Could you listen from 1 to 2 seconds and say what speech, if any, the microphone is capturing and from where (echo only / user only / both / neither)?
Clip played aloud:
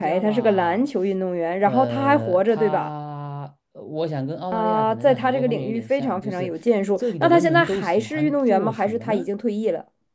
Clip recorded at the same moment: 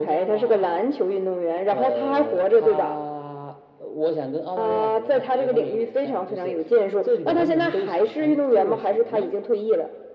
echo only